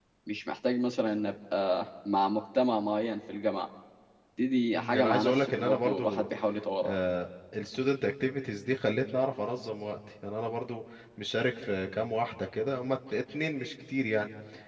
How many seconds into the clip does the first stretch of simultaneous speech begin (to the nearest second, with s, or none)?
5 s